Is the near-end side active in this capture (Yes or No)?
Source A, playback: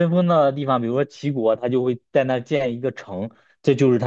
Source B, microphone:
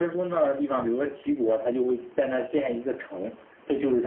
No